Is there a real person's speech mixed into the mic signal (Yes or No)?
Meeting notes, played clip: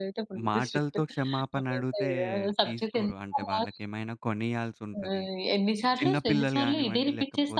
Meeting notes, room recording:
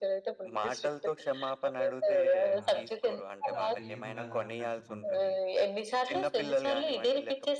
Yes